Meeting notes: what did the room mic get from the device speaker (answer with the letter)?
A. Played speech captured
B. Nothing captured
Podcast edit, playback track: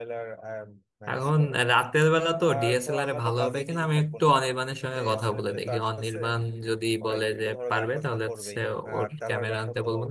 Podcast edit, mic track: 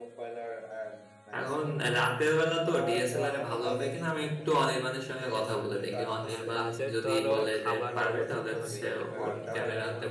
A